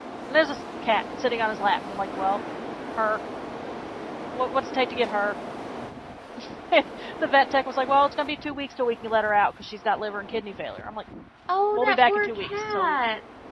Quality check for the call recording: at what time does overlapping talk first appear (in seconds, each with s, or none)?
11.7 s